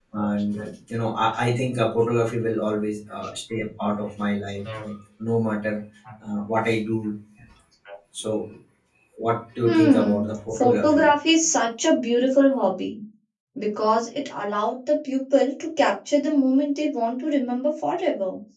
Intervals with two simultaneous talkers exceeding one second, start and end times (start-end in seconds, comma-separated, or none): 9.6-11.1